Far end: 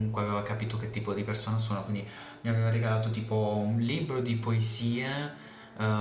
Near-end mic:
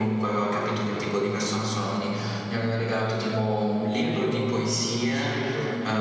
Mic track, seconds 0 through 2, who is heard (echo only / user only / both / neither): echo only